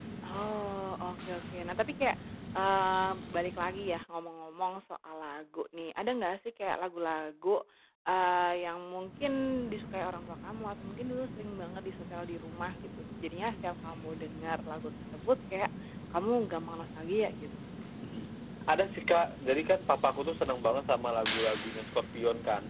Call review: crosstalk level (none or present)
none